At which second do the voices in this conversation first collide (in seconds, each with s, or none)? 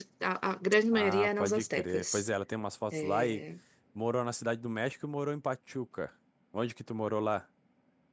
0.9 s